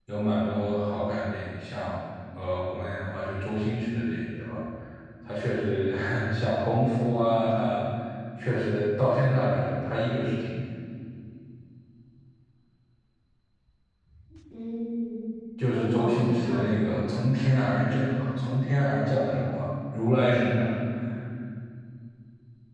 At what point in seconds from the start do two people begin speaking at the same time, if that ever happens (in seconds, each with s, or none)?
15.7 s